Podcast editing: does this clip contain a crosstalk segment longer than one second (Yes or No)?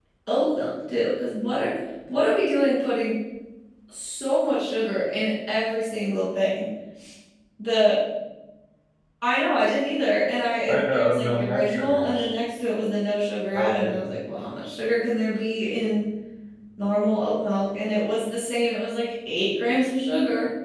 Yes